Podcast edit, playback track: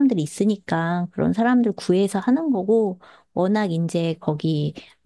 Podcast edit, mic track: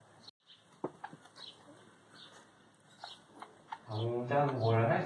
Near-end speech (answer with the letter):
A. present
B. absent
A